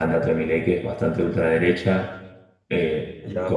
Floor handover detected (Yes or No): No